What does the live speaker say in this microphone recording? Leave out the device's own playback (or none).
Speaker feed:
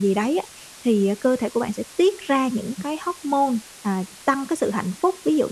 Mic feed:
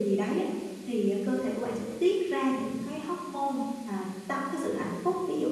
none